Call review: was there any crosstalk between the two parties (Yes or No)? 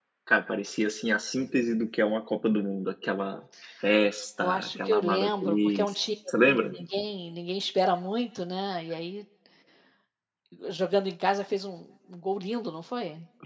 Yes